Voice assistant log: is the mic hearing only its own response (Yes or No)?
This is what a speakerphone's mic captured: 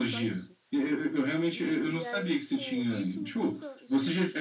No